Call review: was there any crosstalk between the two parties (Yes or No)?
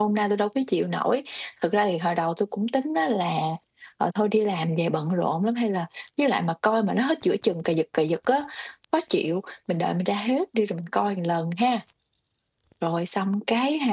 No